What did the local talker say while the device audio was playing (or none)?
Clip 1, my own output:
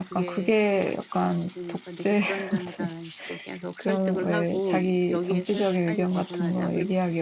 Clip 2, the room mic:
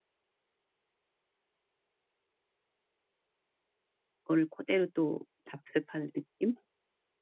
거를 그대로 또 답습하는 느낌?